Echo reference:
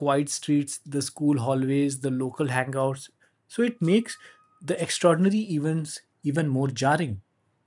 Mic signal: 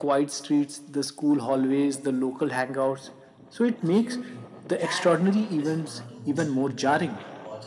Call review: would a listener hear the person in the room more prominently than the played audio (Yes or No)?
No